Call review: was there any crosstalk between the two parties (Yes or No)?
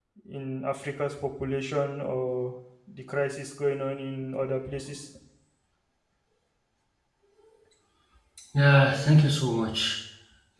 No